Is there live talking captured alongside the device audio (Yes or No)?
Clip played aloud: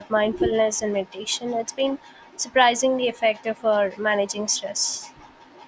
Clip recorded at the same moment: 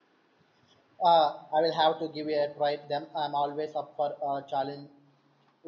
Yes